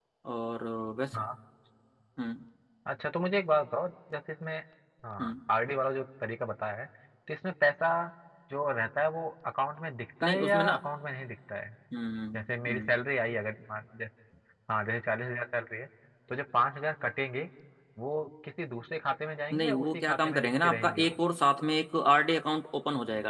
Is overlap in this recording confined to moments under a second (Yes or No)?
No